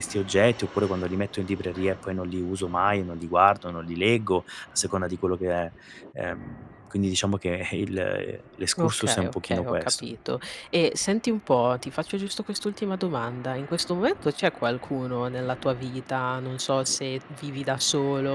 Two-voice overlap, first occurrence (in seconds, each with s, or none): 8.8 s